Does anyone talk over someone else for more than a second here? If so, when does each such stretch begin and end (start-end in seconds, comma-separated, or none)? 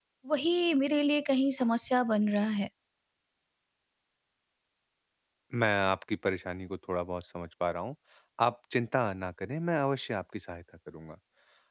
none